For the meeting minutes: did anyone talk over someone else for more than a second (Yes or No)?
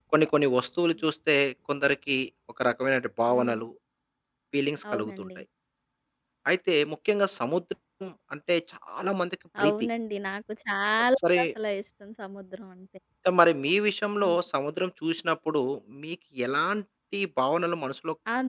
No